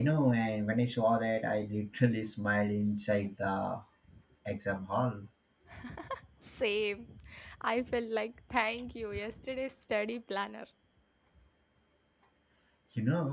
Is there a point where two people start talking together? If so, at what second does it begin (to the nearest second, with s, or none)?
none